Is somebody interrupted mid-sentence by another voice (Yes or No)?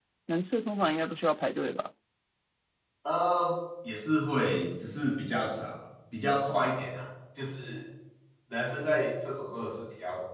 No